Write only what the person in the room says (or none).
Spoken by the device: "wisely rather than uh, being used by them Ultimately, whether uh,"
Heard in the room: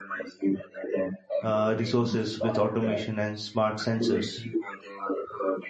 uh, resources with automation and smart sensors.